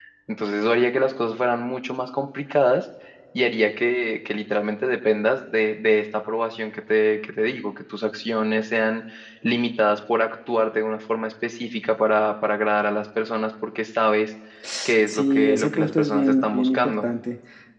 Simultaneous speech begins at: 15 s

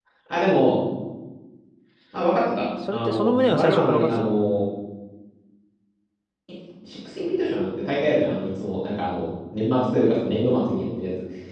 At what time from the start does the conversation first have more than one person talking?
3 s

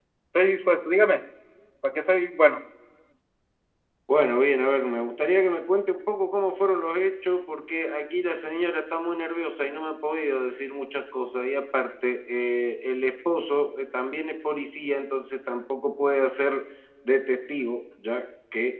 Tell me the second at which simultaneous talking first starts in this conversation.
none

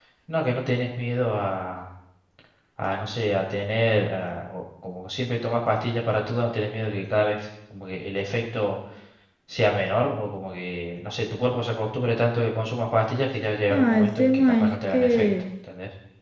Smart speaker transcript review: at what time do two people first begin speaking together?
14 s

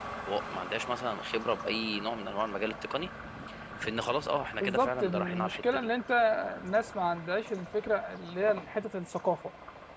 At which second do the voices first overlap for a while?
5 s

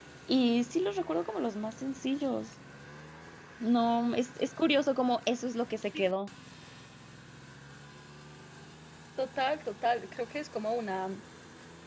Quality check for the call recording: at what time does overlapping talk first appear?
none

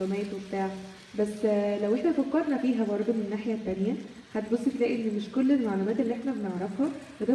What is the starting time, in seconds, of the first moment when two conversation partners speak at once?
none

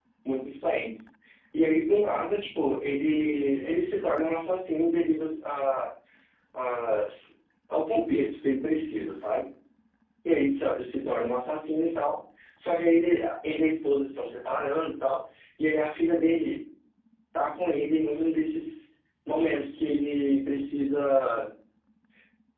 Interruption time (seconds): none

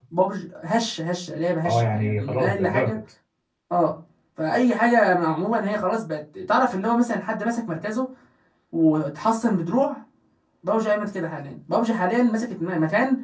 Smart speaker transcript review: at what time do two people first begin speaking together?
2 s

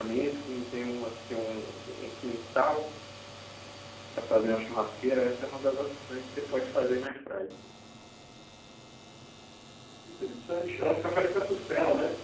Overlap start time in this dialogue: none

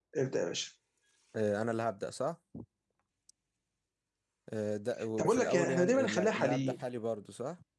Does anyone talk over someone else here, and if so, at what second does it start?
5 s

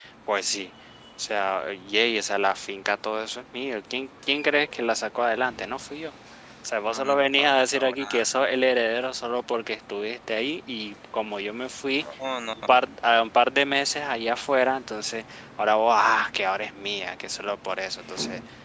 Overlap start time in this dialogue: 7 s

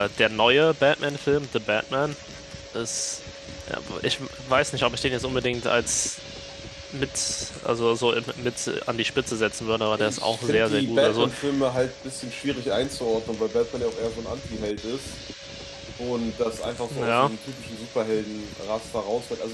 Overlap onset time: 10 s

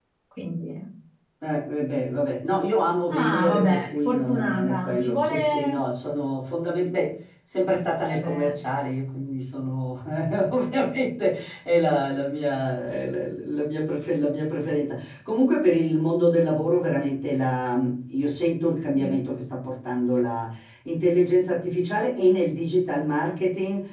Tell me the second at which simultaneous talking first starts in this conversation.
3 s

